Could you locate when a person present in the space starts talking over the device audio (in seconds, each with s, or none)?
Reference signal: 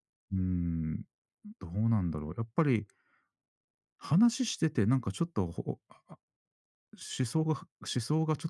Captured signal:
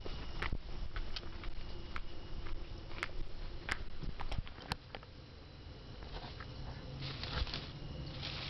none